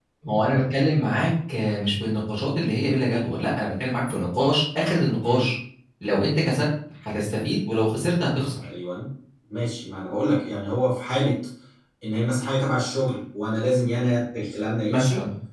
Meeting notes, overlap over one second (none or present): none